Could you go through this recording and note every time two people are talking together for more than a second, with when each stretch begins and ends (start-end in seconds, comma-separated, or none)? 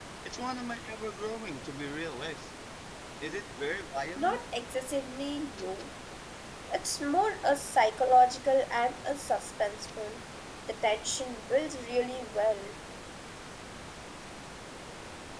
none